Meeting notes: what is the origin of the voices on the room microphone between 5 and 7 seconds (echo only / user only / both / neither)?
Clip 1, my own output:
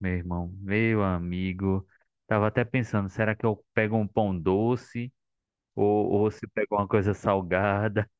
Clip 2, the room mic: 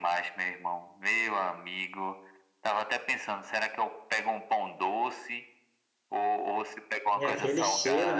echo only